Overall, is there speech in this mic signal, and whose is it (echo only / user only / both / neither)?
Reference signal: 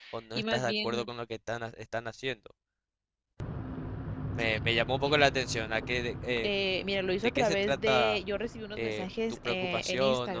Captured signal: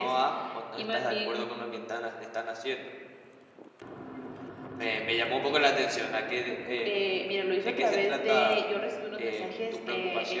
echo only